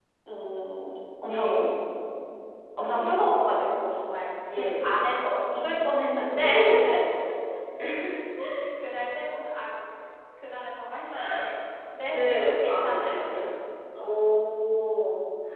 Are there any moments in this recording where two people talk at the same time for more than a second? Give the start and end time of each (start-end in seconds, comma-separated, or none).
12.1-13.3